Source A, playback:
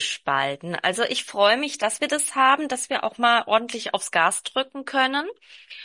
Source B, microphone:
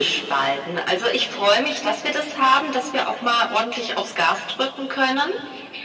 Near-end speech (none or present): none